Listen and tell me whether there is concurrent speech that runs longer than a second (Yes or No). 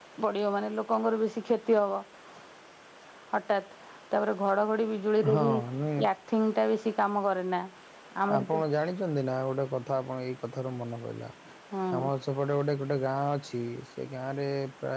No